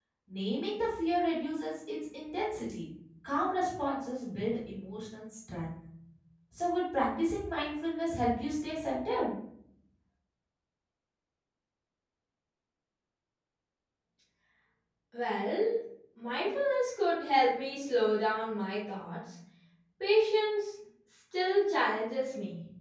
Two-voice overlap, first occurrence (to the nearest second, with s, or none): none